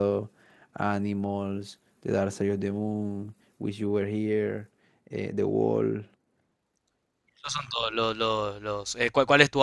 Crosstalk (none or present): none